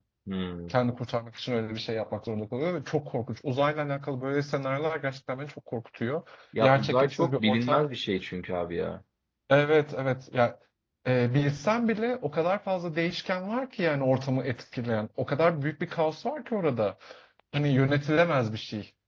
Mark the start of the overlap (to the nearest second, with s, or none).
7 s